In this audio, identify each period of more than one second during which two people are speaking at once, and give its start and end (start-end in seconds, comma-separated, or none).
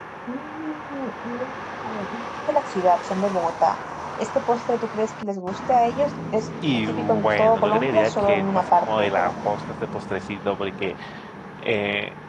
6.9-9.5